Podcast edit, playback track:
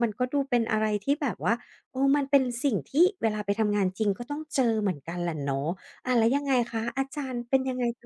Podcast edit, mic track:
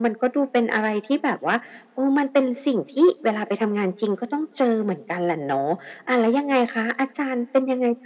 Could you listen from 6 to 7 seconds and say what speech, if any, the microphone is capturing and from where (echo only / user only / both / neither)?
echo only